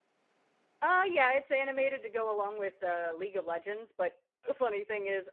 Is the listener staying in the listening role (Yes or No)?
Yes